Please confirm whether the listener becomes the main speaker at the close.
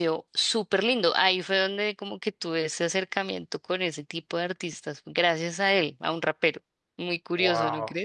Yes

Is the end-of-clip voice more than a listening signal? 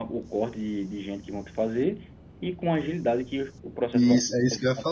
Yes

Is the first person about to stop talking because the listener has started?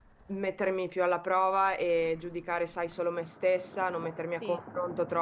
No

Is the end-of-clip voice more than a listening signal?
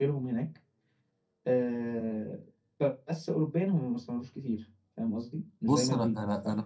Yes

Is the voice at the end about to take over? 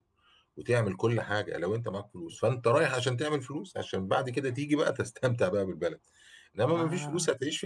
No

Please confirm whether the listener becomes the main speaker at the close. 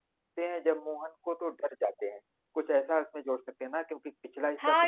Yes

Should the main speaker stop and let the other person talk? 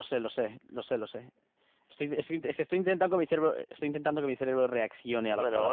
Yes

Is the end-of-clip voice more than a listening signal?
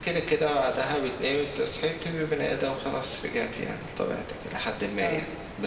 No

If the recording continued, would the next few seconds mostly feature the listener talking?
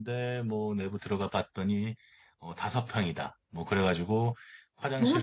No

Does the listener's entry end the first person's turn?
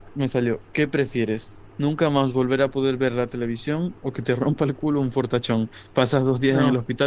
No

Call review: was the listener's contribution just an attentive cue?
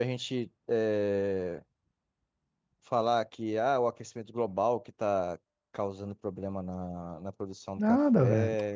No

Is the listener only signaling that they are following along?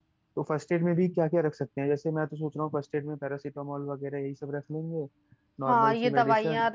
No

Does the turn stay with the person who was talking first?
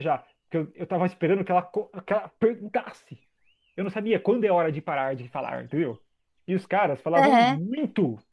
Yes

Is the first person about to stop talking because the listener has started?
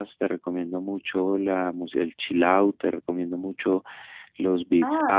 Yes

